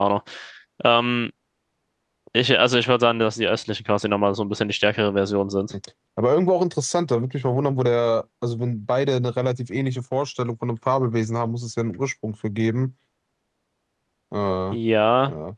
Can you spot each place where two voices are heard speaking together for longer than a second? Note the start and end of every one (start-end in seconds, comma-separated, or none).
none